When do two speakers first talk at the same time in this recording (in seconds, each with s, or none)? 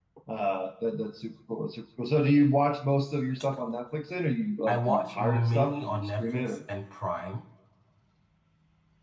4.7 s